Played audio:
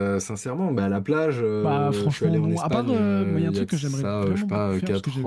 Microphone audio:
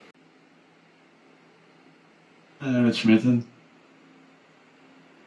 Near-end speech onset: 2.6 s

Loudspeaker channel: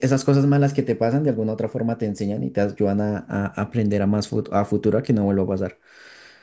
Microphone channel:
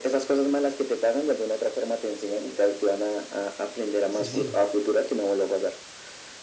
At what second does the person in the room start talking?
4.1 s

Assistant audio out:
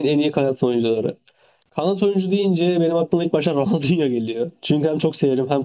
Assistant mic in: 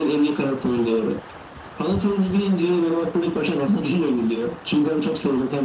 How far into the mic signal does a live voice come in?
none

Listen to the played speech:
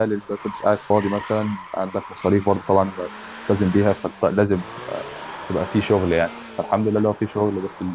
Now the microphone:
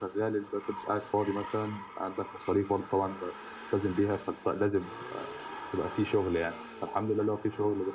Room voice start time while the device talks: none

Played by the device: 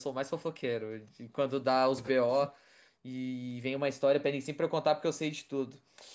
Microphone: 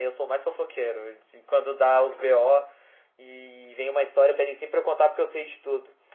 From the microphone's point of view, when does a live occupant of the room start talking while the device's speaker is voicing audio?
none

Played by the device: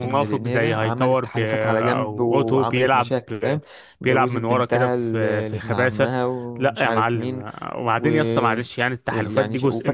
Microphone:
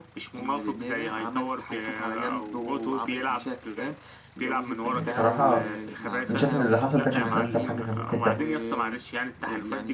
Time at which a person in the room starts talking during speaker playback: 4.9 s

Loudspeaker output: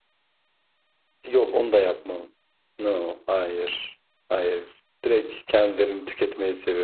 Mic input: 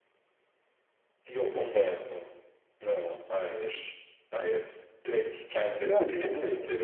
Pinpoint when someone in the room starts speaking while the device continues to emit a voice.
5.8 s

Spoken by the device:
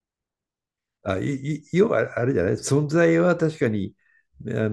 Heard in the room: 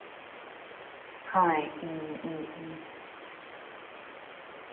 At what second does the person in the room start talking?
1.2 s

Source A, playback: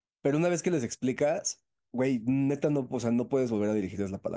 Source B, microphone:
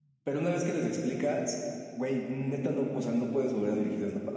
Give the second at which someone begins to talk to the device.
none

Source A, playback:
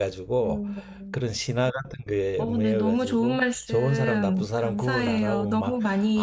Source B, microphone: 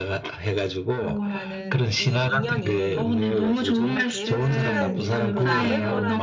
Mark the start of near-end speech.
1.1 s

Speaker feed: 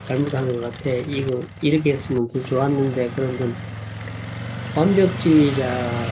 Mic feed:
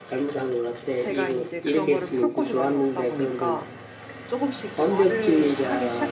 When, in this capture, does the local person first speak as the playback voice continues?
1.0 s

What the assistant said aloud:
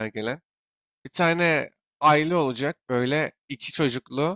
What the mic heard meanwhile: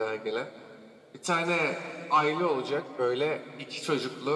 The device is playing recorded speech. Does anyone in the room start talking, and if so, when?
none

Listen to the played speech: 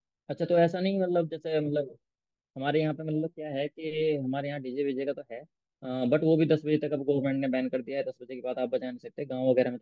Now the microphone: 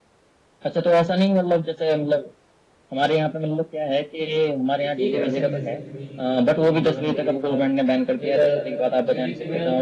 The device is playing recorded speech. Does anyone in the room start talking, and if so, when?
4.8 s

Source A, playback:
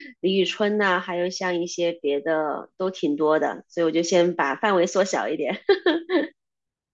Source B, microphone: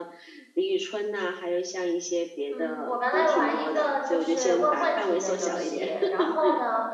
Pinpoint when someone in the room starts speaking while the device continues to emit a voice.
2.5 s

